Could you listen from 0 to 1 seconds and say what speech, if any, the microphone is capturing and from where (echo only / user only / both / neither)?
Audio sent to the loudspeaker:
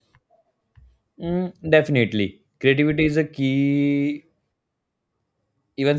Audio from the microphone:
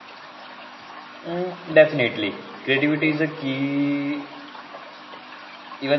neither